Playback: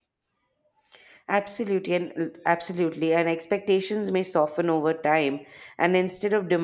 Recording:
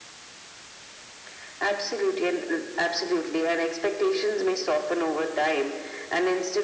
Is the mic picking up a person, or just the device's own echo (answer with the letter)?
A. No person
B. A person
A